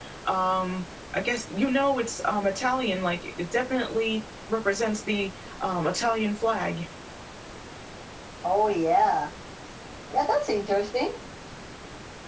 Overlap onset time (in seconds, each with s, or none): none